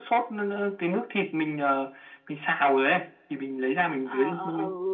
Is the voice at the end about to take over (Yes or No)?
Yes